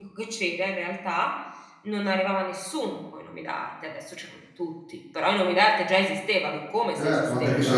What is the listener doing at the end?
taking over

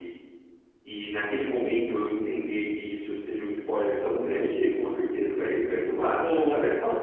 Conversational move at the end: taking over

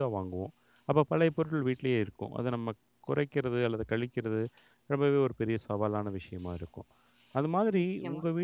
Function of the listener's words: listening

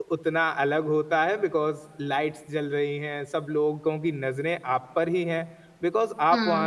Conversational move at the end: listening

